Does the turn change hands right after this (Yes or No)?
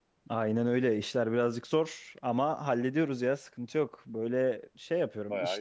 No